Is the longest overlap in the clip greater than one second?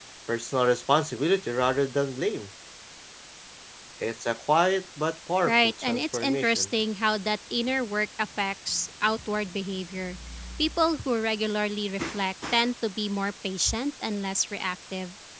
Yes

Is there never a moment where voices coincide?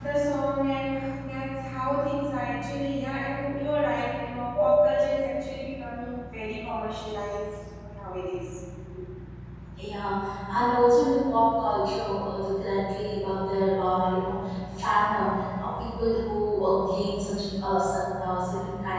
Yes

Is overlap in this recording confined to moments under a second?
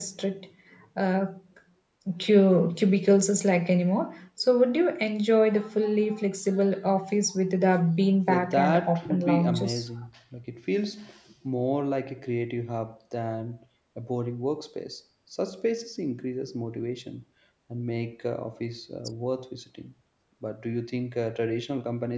No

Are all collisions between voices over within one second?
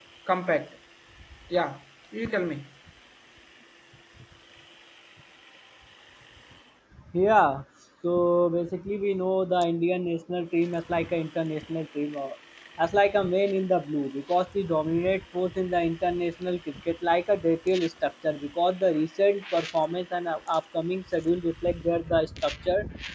Yes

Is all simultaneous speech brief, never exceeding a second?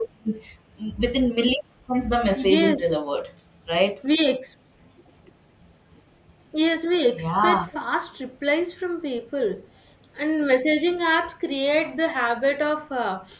Yes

